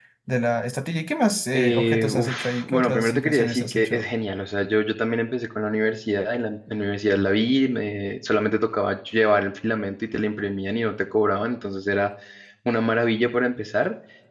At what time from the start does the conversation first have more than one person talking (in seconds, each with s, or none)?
1.5 s